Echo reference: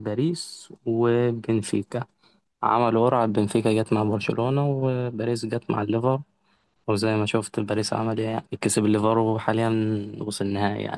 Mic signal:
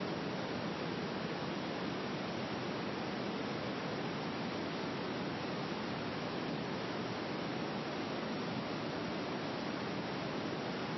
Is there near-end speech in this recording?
No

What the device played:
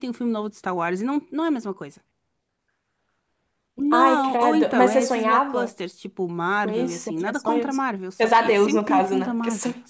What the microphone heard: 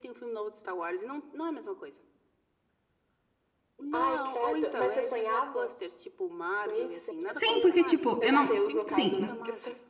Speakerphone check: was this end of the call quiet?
No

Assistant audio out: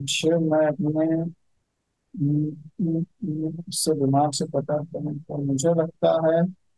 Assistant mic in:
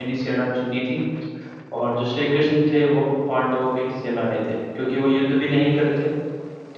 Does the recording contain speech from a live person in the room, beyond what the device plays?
Yes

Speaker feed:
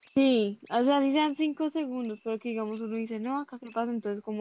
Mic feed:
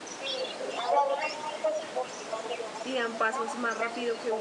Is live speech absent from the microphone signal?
No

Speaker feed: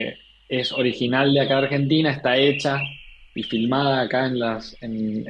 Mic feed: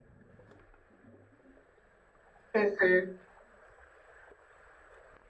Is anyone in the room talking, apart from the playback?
Yes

